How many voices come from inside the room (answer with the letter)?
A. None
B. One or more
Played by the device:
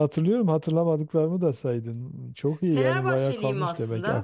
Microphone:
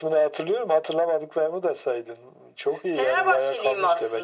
A